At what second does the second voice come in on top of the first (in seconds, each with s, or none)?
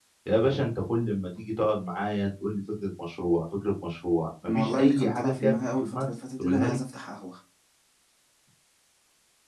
4.5 s